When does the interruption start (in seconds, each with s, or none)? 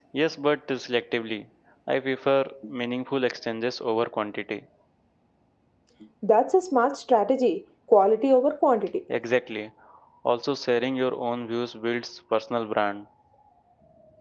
none